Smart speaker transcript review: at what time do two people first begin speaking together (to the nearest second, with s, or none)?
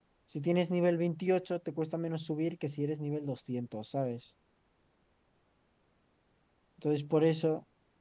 none